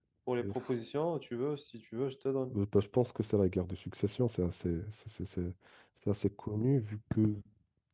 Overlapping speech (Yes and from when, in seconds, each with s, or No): No